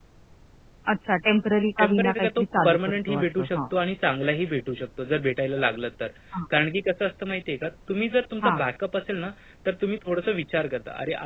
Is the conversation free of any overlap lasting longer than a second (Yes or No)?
No